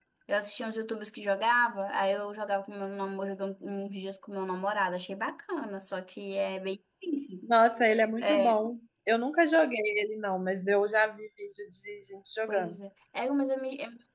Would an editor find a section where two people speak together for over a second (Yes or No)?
No